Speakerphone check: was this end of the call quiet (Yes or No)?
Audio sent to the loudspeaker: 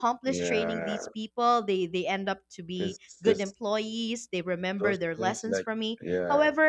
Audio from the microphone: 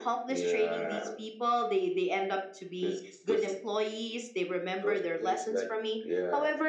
Yes